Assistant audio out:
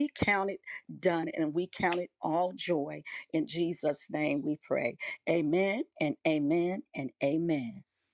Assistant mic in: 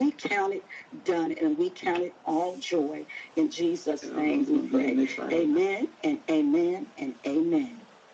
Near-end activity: present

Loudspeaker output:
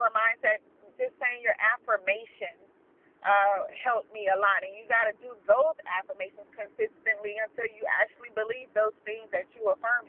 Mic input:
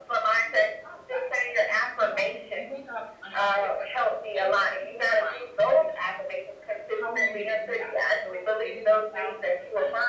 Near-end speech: present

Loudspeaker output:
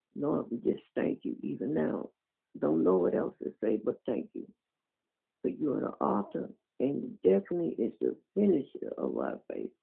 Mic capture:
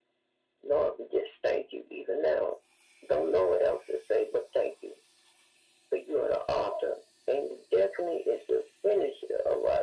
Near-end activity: none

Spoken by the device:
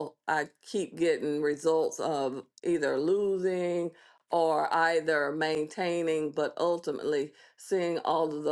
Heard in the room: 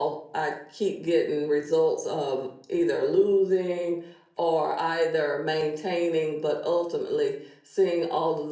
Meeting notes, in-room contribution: none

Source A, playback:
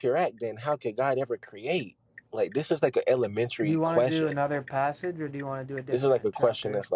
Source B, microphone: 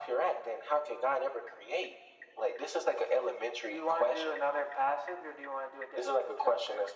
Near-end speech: none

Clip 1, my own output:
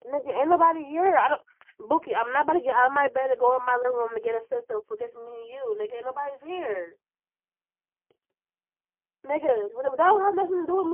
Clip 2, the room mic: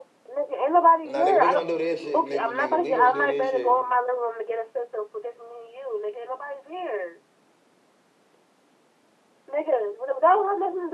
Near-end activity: present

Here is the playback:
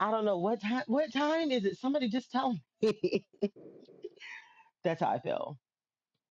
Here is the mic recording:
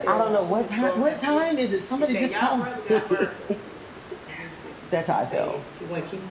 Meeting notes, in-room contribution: present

